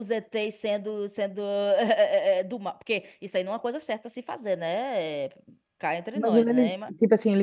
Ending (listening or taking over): taking over